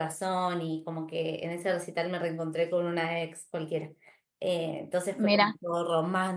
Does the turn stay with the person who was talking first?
Yes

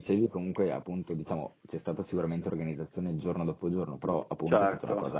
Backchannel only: Yes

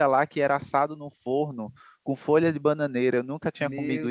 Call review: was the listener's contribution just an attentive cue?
No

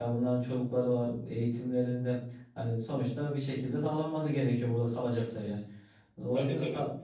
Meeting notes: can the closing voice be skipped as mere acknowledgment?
Yes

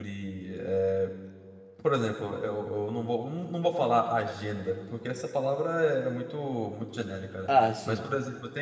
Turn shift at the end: No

